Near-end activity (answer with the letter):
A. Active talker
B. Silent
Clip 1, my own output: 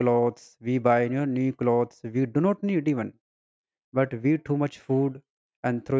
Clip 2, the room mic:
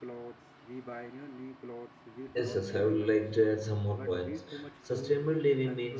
A